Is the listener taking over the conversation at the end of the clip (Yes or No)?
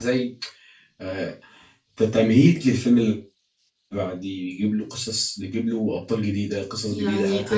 No